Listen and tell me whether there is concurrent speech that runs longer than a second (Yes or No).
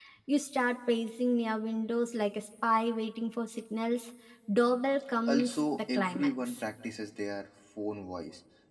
Yes